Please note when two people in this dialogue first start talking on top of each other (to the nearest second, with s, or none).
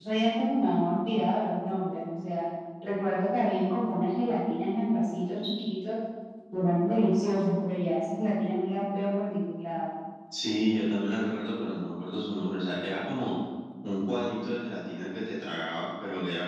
none